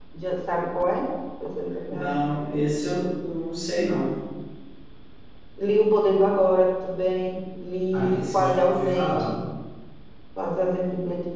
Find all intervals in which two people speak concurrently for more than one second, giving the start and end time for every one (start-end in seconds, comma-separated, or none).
7.9-9.3